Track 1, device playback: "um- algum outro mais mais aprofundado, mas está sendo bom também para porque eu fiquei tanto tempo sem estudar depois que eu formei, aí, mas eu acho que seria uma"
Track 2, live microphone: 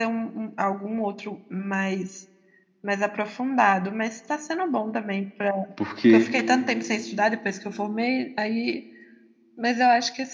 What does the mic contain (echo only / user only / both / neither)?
both